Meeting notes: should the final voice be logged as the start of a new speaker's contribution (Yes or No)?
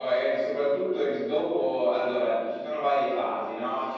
No